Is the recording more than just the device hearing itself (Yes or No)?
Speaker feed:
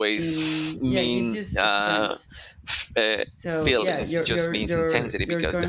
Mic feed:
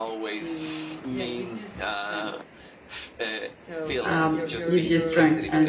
Yes